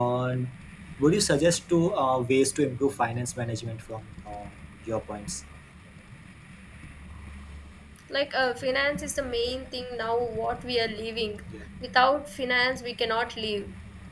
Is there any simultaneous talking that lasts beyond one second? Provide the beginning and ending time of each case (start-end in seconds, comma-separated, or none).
none